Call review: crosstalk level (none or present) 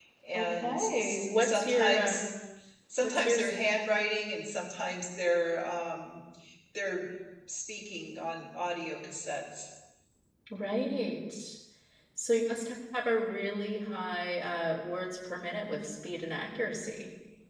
present